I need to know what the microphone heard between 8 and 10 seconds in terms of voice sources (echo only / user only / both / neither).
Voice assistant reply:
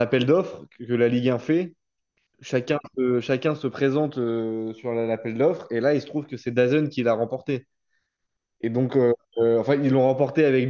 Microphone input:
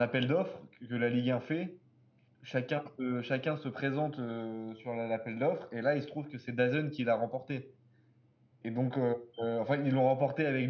echo only